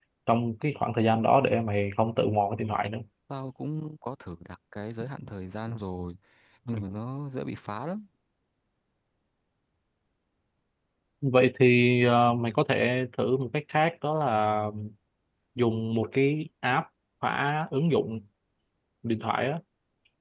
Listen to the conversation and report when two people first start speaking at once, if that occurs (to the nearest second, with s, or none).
none